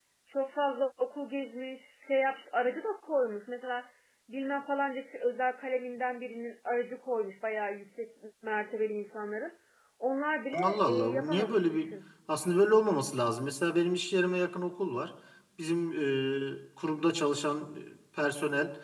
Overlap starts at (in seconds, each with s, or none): 10.5 s